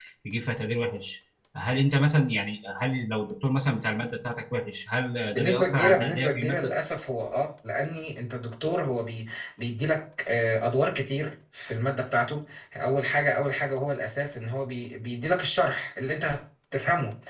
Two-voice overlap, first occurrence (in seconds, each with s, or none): 5.4 s